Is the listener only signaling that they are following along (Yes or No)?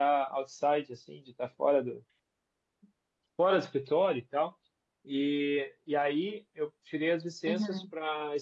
Yes